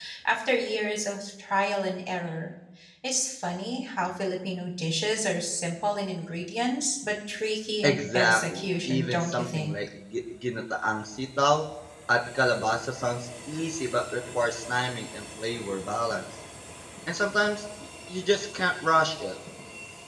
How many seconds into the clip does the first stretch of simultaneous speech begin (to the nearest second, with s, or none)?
8 s